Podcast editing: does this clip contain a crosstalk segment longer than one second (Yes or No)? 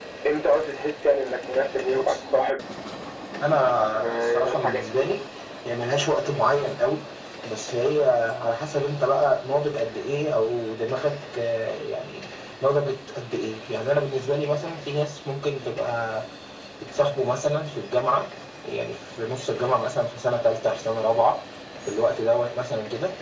Yes